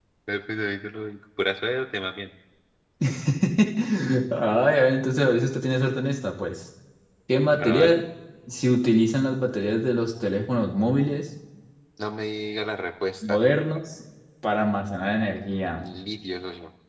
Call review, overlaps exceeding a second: none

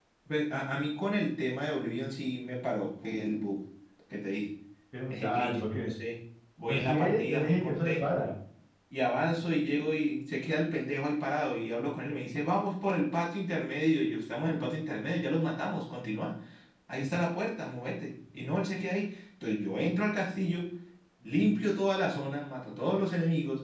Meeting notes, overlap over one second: present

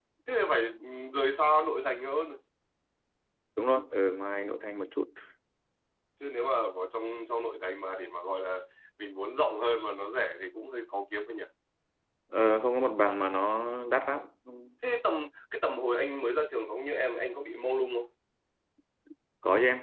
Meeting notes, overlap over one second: none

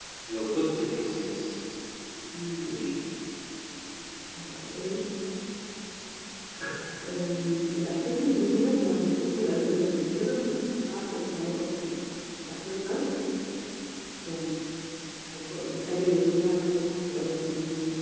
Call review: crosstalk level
none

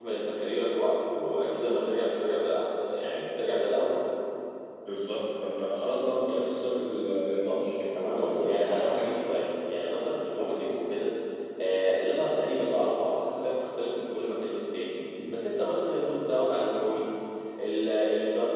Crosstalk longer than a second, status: present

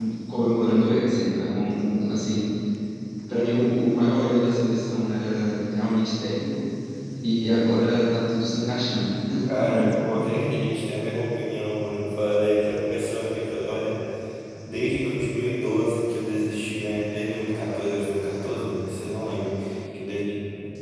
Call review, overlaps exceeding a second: none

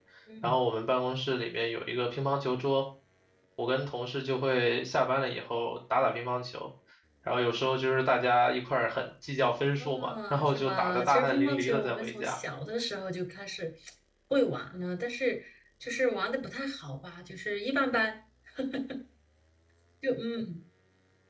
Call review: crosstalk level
present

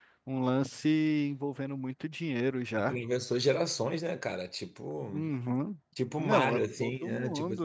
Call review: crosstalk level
present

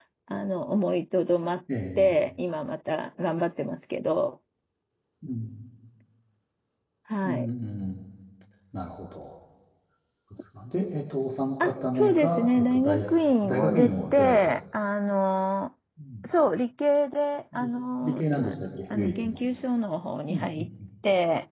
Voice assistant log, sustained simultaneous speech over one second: present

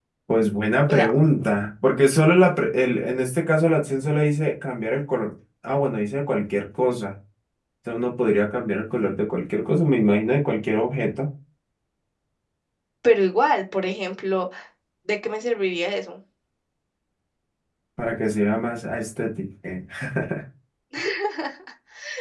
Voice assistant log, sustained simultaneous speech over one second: none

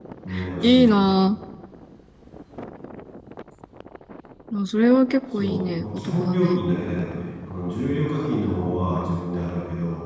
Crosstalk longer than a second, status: present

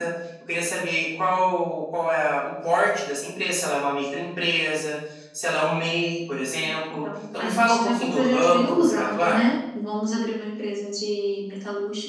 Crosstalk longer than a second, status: present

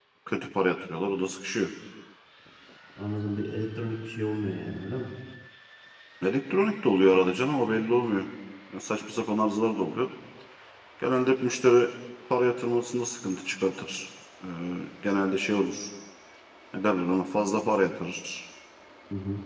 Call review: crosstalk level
none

